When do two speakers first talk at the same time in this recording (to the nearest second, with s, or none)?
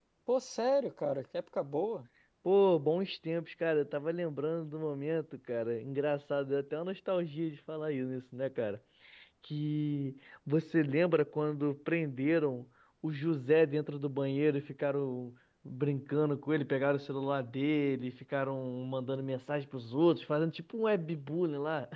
none